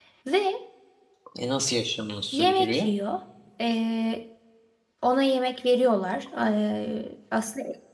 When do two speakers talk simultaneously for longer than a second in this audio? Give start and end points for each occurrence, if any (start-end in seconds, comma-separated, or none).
none